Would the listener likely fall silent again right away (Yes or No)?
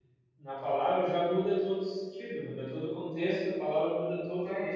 Yes